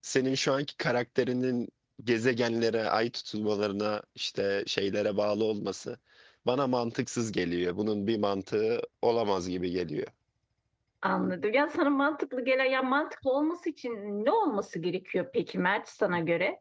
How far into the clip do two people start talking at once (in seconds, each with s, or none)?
none